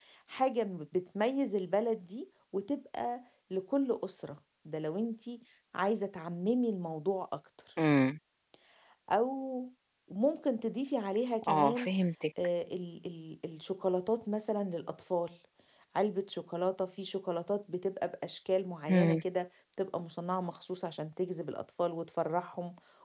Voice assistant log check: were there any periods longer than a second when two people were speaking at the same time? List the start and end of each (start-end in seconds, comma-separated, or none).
none